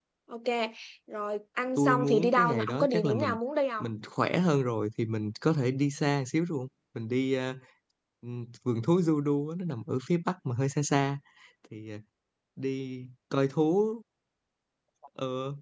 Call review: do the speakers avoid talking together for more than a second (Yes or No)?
No